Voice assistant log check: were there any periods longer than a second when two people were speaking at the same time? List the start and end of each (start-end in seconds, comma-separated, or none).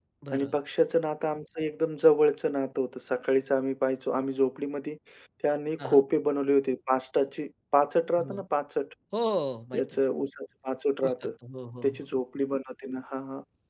none